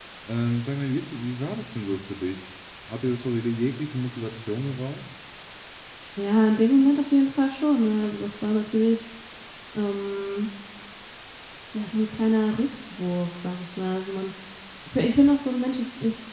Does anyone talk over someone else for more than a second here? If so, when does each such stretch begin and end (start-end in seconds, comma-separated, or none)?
none